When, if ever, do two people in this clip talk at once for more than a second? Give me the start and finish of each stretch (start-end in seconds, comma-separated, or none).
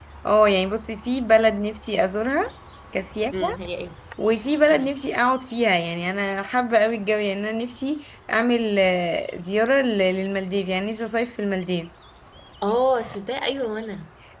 none